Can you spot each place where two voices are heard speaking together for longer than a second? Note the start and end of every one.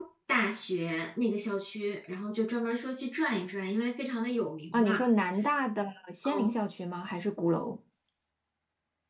none

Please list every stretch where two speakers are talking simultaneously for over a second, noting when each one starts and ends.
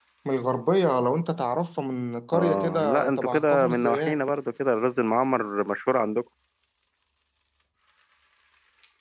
2.3-4.2

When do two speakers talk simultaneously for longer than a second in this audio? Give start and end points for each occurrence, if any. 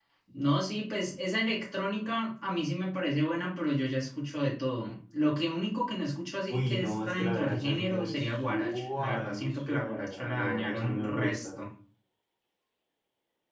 6.5-11.6

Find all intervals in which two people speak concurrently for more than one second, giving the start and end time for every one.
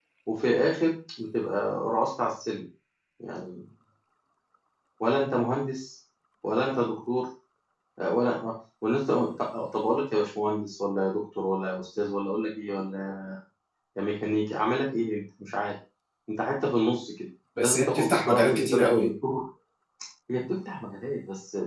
17.6-19.1

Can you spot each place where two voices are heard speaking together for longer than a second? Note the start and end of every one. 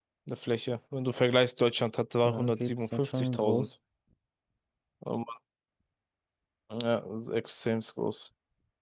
2.2-3.7

